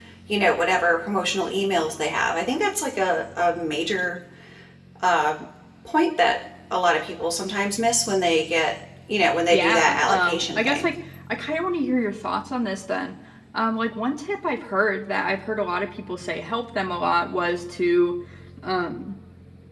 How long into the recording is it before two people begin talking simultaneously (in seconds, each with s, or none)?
9.5 s